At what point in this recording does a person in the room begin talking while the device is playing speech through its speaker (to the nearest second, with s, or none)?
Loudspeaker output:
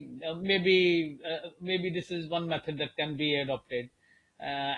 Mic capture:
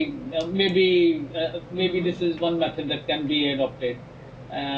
2 s